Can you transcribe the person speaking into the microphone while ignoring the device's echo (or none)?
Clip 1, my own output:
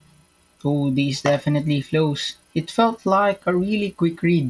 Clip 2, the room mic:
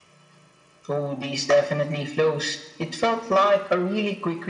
none